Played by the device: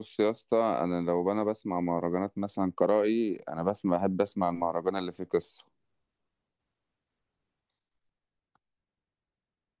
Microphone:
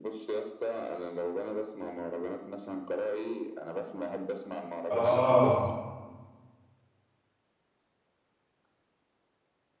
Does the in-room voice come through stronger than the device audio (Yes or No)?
Yes